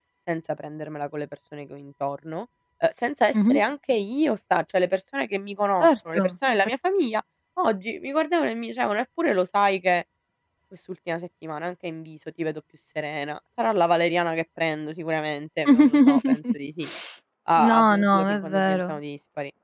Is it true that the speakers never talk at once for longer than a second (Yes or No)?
No